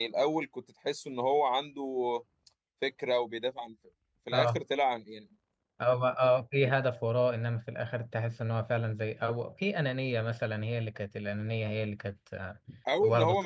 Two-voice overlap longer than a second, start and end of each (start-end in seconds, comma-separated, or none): none